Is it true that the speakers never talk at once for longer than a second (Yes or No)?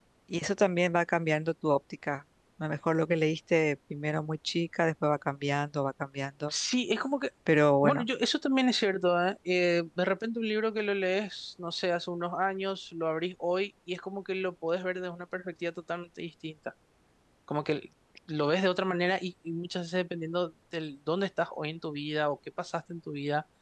Yes